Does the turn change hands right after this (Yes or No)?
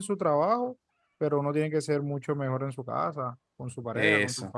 Yes